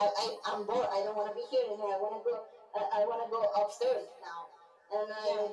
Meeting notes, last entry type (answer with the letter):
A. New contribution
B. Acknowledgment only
B